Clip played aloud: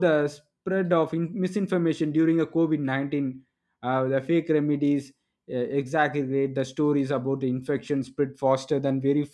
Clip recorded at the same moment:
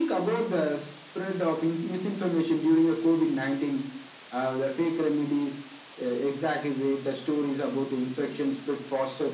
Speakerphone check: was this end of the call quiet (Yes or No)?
Yes